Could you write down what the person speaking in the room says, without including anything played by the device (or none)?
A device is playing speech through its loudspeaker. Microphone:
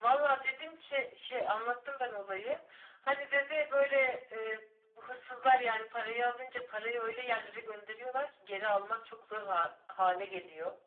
none